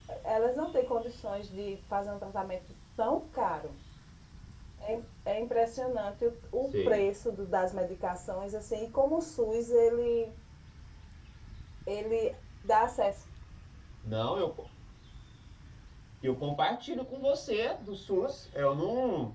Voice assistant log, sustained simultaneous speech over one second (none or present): none